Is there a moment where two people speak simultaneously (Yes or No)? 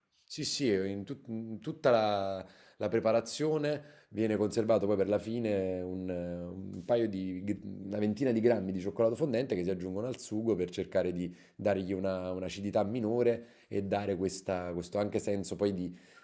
No